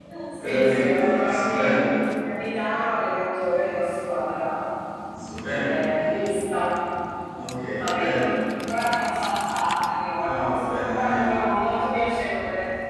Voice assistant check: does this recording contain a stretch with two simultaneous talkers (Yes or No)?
Yes